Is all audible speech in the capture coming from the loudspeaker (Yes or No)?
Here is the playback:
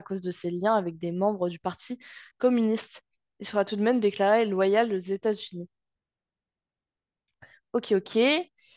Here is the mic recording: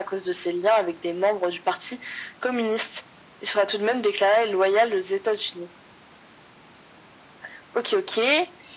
Yes